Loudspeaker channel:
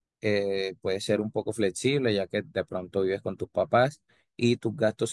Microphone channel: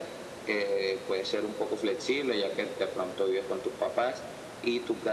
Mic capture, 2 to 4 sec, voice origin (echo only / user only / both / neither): echo only